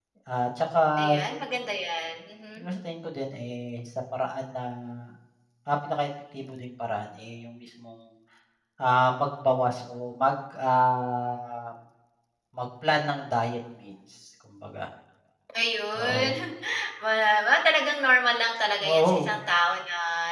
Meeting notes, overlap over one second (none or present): none